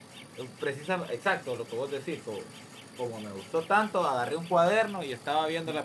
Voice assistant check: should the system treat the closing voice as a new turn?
No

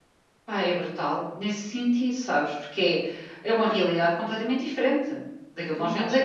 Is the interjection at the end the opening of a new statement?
Yes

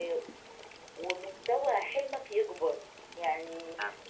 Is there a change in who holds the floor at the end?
No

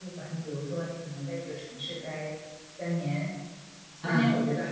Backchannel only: Yes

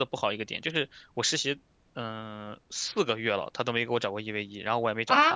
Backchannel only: No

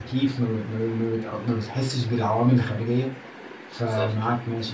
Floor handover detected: No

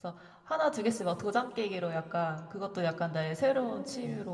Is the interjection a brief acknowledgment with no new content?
Yes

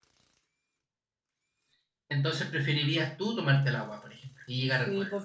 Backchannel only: No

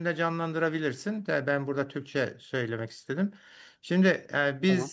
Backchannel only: Yes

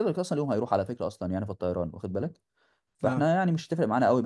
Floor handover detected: No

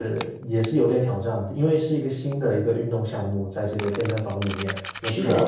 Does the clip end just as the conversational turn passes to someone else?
No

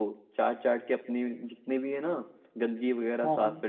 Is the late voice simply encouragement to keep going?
Yes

